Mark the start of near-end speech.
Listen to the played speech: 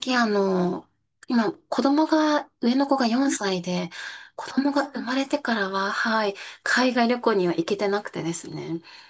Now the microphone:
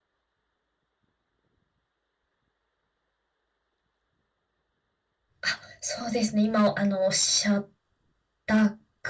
5.4 s

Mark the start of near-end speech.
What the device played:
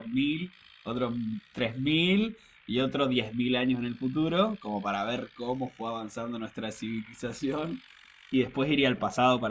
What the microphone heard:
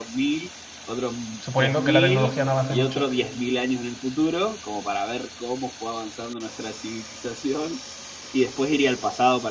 1.4 s

